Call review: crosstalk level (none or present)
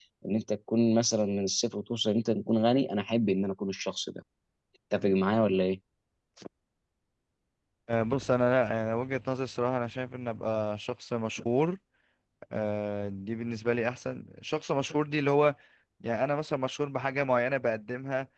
none